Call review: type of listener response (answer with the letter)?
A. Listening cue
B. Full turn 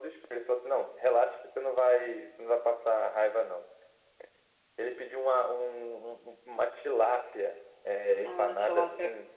A